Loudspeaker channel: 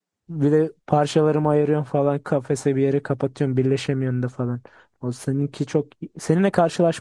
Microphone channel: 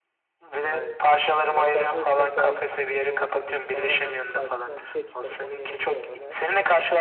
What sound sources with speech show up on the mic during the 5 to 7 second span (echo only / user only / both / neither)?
both